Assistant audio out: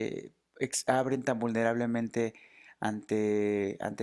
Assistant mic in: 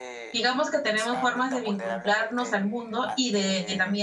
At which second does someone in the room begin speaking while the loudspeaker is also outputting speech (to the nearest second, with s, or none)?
0 s